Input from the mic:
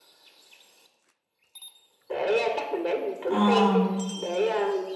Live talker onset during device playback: 3.3 s

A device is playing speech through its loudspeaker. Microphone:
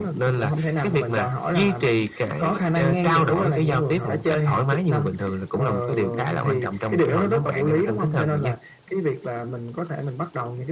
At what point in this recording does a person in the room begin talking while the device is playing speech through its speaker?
none

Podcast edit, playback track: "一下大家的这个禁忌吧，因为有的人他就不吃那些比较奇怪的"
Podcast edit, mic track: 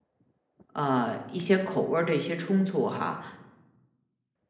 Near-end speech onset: 0.7 s

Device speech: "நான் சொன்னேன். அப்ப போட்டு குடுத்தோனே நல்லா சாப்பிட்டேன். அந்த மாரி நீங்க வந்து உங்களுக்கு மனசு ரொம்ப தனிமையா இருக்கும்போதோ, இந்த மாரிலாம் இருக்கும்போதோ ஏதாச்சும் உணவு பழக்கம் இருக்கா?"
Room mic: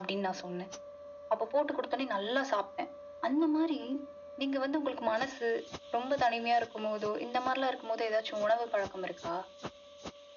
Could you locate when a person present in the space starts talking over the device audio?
none

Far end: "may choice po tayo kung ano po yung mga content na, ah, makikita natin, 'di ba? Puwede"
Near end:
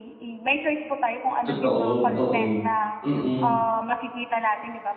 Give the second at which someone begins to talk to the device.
1.4 s

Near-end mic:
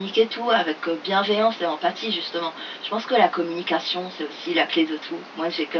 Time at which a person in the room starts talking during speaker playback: none

